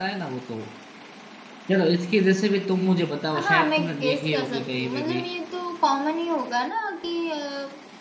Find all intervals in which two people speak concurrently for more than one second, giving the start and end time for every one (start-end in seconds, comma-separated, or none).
3.4-5.2